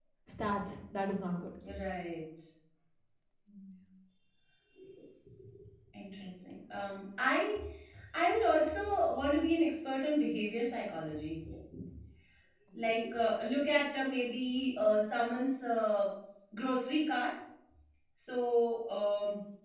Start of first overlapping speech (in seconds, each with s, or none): none